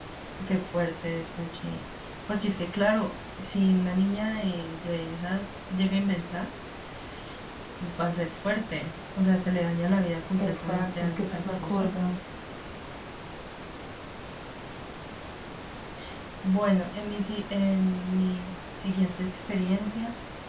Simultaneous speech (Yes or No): Yes